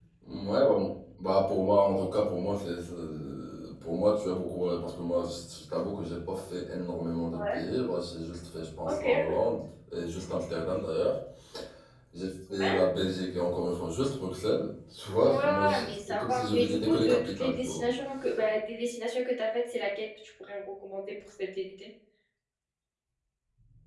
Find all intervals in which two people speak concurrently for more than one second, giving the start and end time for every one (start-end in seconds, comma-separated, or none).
15.2-17.8